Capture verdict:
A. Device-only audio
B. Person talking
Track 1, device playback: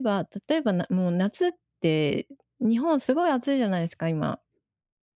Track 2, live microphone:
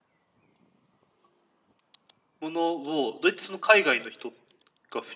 B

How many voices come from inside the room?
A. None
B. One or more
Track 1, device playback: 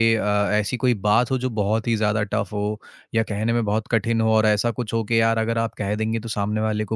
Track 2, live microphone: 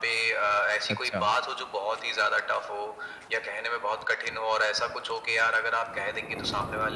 B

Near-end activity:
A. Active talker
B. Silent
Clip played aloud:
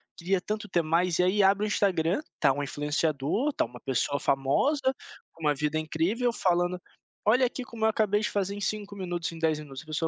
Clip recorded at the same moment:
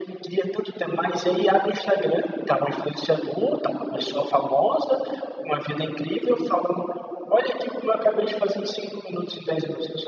B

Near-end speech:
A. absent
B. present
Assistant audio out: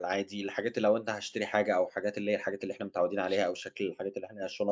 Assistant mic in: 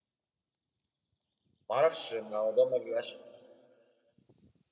B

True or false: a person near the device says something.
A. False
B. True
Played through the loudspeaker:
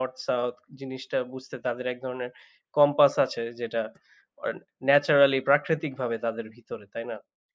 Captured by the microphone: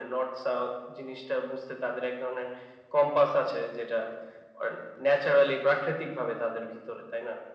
A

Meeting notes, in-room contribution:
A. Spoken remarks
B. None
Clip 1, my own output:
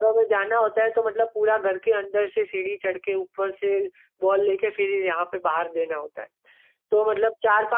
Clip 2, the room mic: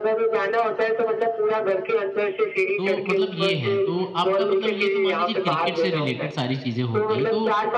A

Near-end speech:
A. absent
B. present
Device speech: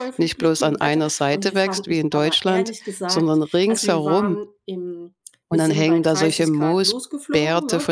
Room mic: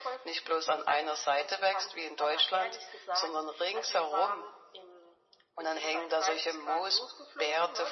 A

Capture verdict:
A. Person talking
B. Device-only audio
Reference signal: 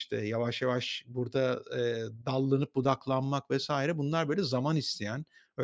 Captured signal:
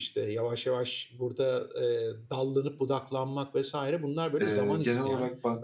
A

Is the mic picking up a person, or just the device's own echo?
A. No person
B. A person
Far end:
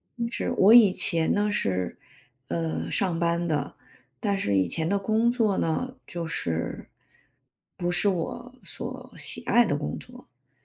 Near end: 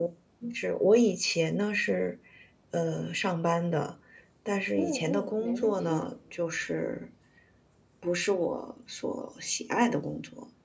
B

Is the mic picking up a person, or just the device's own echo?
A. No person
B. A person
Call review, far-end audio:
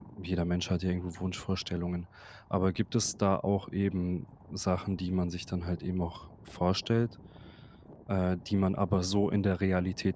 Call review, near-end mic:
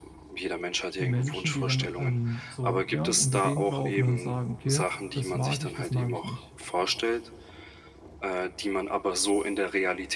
B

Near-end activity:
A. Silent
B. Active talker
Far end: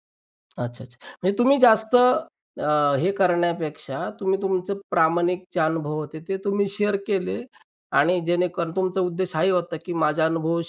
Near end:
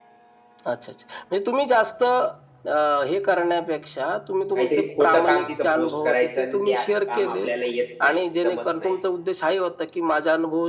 B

